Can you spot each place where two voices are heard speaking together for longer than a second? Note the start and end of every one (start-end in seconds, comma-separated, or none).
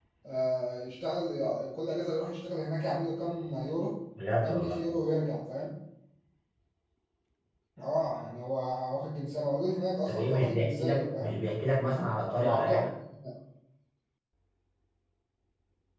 10.1-11.4